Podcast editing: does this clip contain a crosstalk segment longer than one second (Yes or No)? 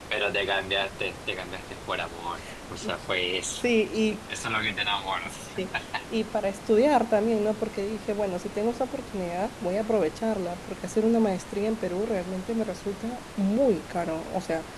No